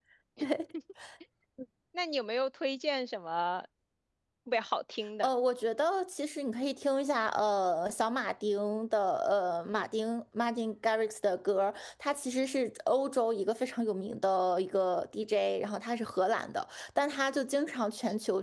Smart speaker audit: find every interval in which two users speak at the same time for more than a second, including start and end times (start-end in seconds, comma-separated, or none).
none